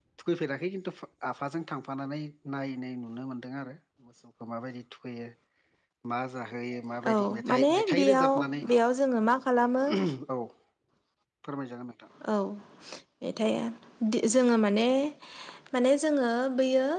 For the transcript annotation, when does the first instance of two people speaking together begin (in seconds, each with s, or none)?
7.0 s